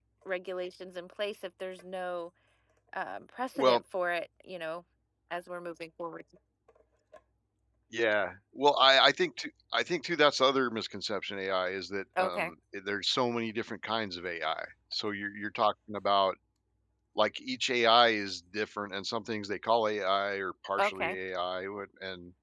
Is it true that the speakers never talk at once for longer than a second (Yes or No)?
Yes